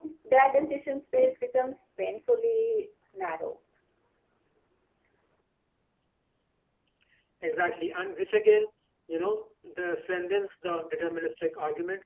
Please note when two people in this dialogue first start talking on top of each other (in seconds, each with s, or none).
none